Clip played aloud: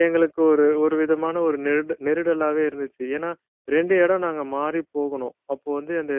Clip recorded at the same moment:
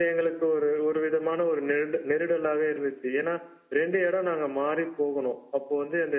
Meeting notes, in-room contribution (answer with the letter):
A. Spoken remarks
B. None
B